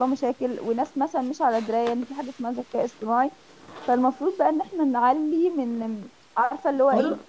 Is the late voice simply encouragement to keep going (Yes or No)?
Yes